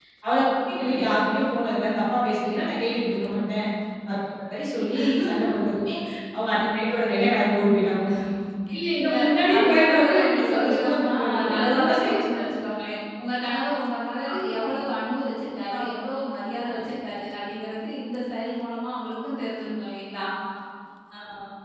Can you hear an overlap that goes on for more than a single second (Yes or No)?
Yes